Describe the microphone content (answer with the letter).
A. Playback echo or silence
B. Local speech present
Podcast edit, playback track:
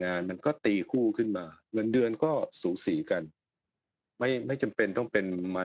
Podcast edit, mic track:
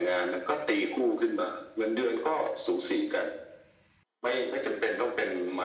A